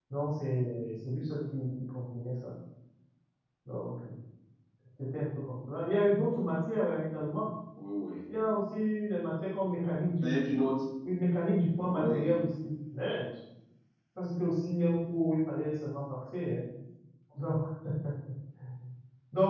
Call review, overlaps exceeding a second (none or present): none